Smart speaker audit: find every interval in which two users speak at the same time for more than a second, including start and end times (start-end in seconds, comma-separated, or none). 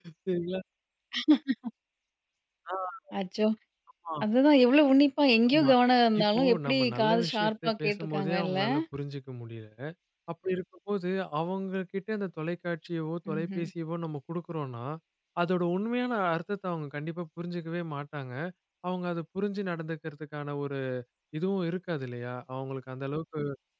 6.2-8.6